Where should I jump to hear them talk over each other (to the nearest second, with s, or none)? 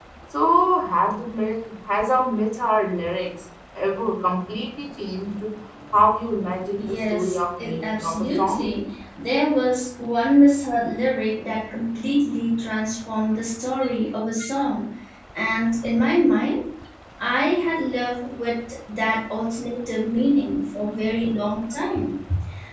7 s